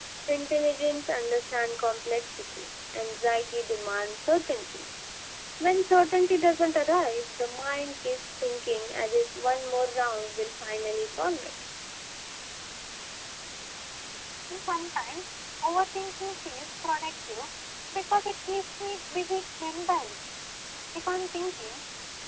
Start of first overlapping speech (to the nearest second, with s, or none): none